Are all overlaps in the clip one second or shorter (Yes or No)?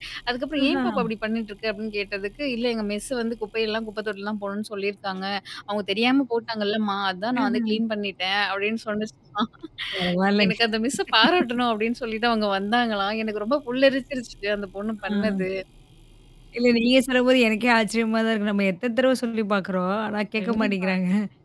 Yes